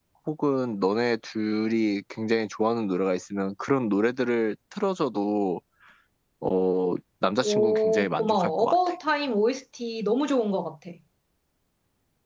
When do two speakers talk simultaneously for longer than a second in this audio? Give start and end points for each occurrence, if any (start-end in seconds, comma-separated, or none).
7.4-8.8